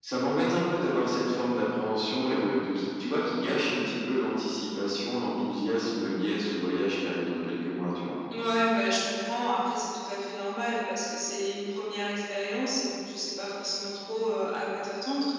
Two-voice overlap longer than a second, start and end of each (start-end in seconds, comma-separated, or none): none